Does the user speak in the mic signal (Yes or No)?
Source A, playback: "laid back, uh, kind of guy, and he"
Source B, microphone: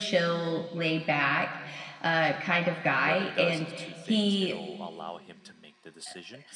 Yes